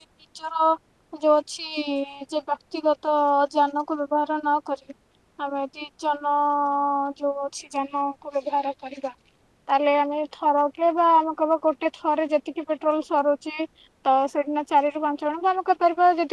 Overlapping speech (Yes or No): No